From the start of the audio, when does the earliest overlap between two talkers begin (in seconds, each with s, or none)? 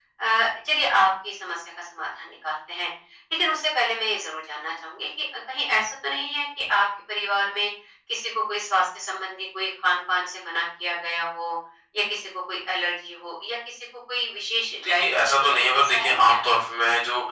14.7 s